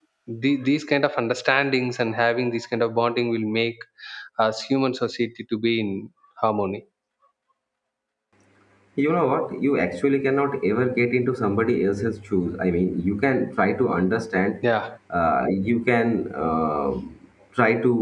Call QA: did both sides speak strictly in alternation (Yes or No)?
Yes